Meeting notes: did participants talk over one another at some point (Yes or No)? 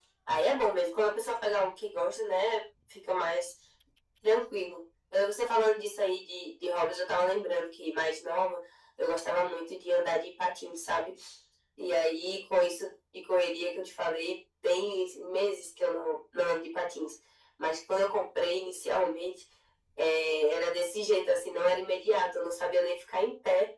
No